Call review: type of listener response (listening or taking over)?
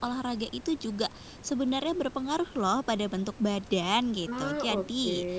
listening